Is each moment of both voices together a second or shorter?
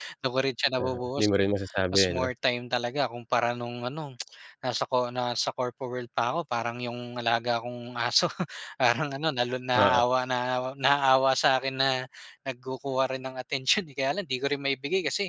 Yes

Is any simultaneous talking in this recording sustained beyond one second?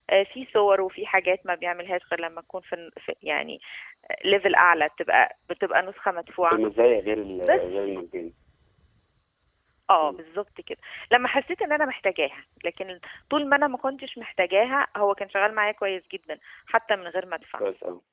No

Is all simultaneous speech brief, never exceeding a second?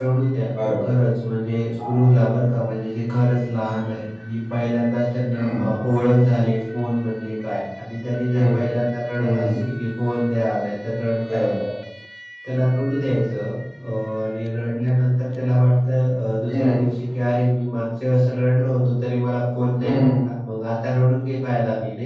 Yes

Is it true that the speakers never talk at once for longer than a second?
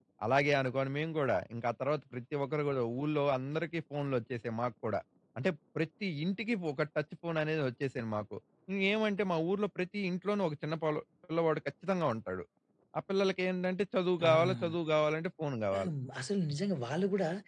Yes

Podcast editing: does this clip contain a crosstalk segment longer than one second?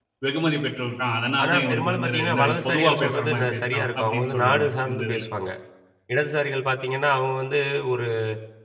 Yes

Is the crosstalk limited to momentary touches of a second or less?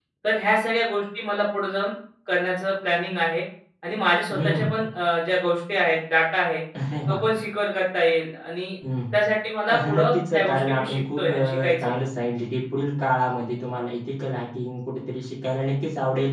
No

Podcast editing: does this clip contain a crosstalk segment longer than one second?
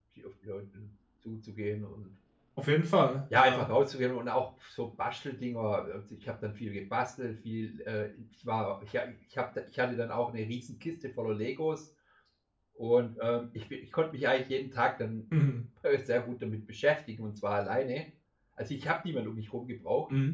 No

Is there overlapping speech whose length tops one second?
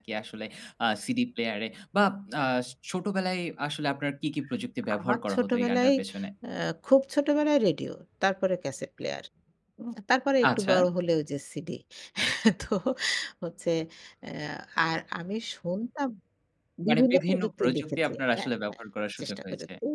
Yes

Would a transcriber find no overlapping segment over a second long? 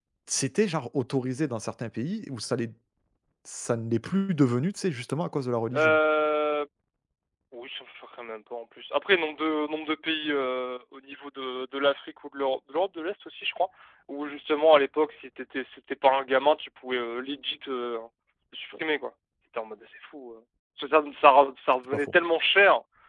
Yes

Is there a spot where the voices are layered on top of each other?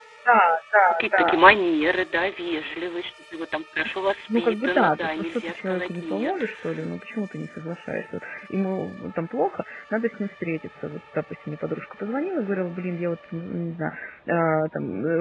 Yes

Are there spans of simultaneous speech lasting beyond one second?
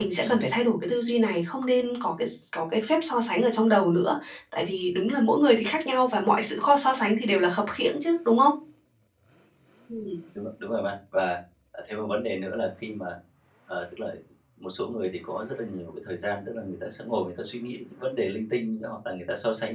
No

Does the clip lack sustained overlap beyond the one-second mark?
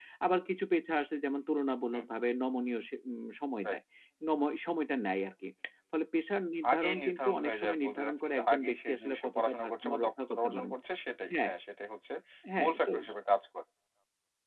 No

